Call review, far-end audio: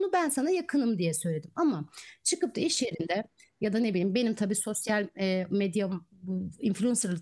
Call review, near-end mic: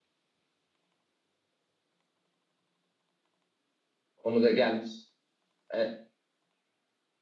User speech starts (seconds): 4.2 s

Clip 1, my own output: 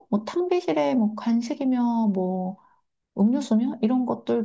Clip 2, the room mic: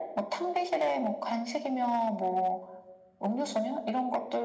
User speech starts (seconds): none

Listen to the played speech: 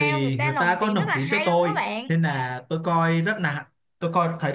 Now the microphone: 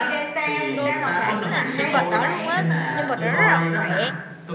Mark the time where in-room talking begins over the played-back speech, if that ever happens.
0.7 s

